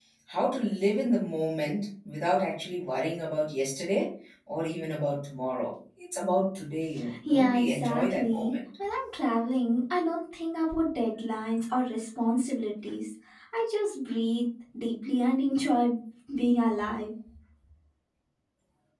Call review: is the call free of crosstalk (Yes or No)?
No